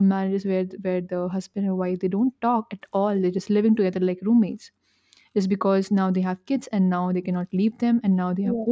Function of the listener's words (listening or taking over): listening